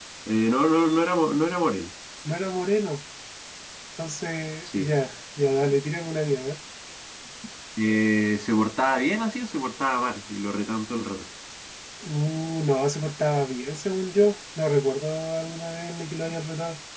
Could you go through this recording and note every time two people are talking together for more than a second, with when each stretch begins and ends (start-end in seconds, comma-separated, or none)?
none